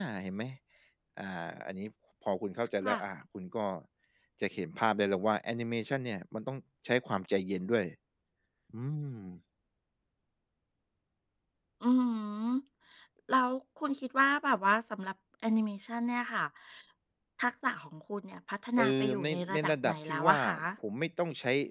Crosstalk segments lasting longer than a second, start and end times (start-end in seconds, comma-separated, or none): 18.8-20.4